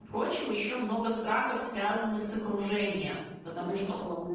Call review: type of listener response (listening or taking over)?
listening